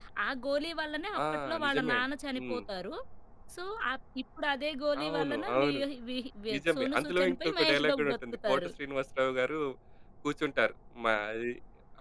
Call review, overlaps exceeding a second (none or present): present